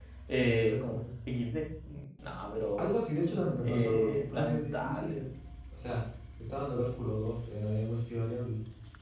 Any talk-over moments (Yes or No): Yes